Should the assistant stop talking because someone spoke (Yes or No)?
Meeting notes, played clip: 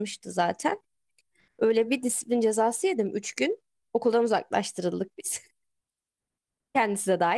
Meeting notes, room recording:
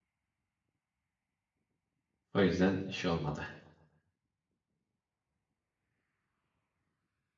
Yes